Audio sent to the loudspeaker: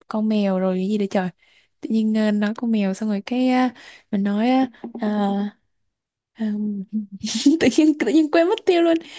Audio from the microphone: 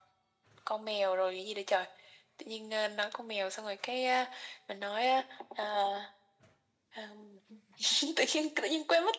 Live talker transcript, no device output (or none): none